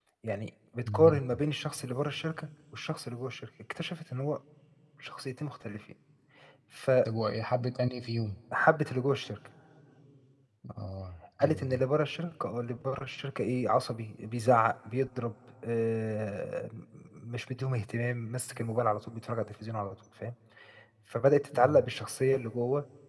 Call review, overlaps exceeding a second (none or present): none